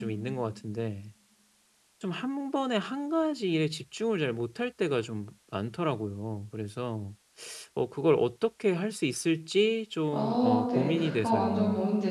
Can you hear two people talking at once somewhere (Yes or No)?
Yes